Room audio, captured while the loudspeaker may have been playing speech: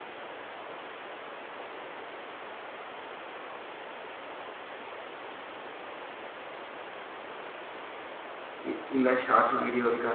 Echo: none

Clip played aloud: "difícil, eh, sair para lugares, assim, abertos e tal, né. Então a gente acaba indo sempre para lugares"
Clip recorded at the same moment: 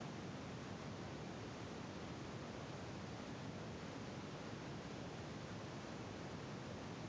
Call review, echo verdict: none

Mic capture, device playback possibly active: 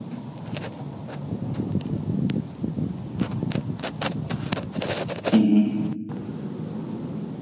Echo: none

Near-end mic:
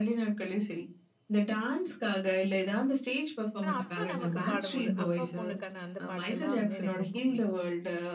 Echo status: present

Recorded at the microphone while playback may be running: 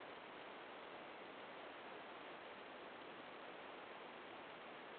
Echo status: none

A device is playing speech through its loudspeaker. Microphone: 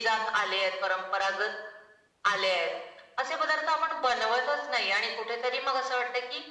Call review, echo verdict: present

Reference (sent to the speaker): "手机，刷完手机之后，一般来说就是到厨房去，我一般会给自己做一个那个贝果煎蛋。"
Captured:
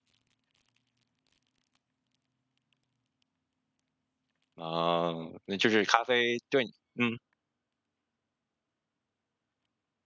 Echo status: none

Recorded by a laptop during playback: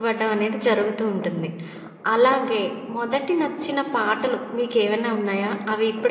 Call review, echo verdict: none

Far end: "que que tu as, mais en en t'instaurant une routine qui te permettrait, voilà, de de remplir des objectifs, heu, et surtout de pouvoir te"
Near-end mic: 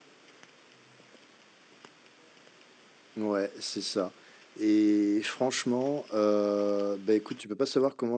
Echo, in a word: none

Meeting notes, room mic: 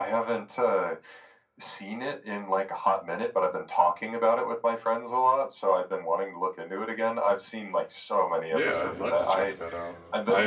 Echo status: present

